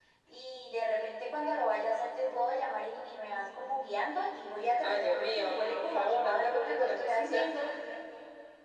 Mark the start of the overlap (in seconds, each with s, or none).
4.8 s